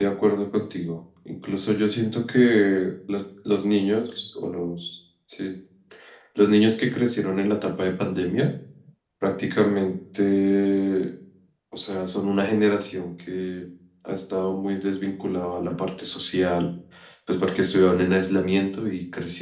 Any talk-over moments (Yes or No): No